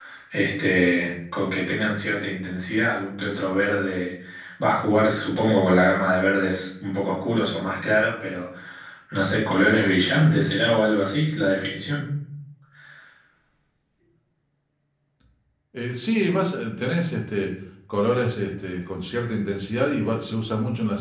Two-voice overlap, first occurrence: none

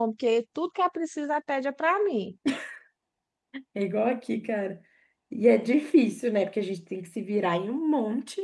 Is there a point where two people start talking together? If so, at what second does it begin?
none

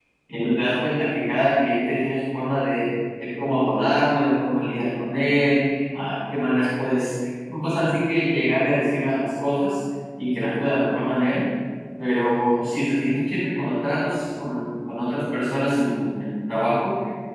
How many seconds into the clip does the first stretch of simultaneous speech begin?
none

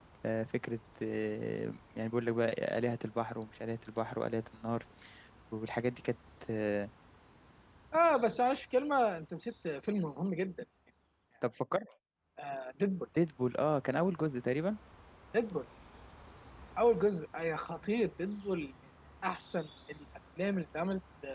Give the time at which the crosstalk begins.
none

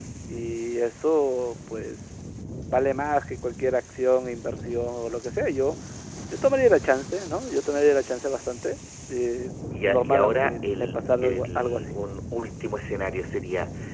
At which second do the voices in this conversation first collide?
9.7 s

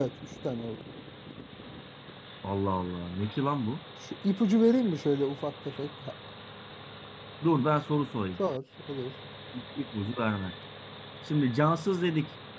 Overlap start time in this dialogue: none

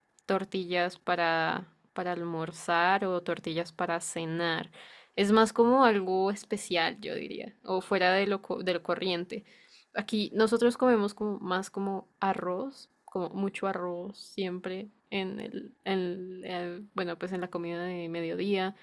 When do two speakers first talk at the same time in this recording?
none

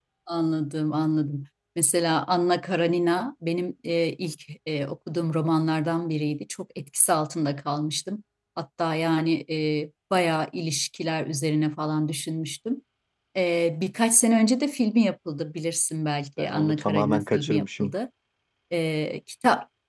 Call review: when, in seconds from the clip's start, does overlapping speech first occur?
16.4 s

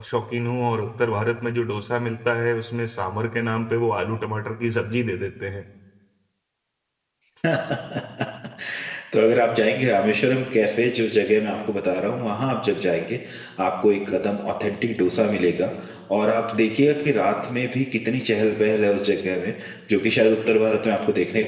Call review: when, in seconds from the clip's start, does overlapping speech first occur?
none

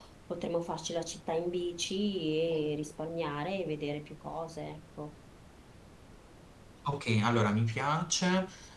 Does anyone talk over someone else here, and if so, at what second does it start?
none

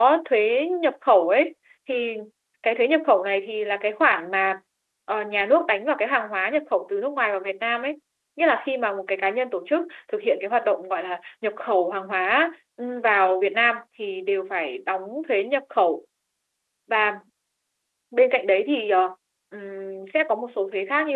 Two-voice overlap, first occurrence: none

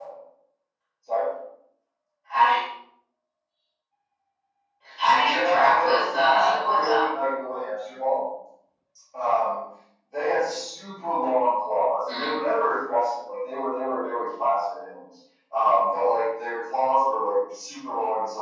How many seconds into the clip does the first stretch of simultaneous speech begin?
5.0 s

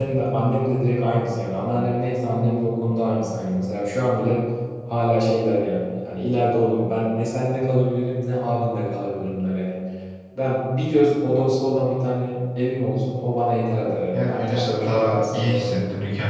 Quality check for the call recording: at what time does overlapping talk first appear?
14.1 s

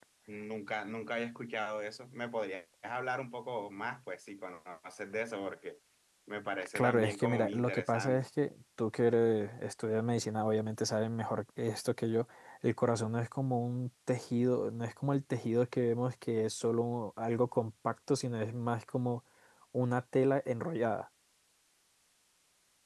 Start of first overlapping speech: 6.8 s

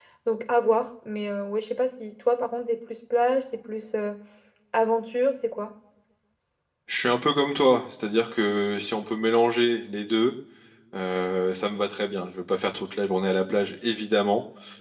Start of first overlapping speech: none

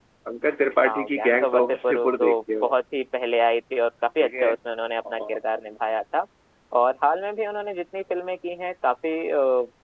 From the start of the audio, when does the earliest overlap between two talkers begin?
0.9 s

